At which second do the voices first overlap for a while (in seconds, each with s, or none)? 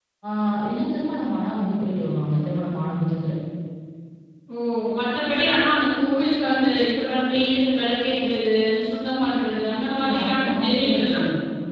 9.9 s